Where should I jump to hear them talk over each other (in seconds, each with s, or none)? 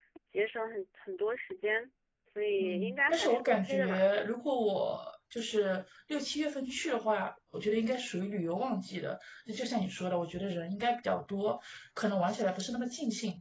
2.6 s